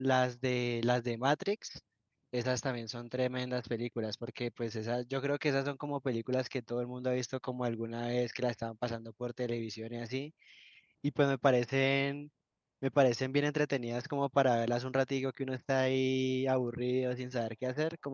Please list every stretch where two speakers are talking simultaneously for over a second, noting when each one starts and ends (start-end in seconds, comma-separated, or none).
none